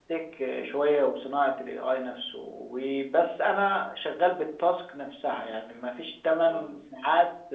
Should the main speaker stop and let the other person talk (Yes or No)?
No